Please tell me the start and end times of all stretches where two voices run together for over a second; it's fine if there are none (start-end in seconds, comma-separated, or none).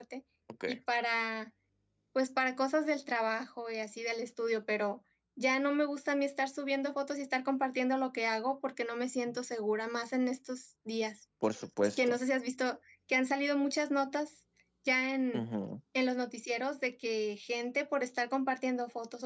none